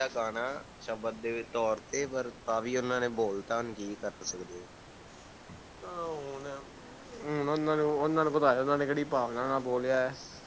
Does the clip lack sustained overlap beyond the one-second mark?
Yes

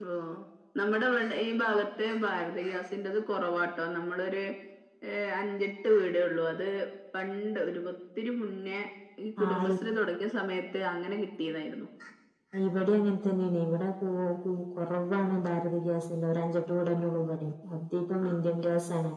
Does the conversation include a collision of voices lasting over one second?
No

